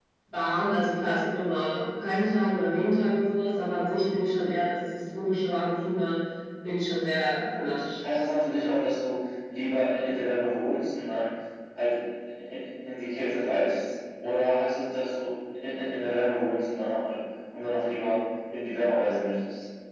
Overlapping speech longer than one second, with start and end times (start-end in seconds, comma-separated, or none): none